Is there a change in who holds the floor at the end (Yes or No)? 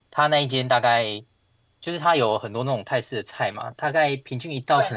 No